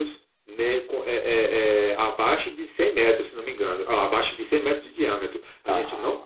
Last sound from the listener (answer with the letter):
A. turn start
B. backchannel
B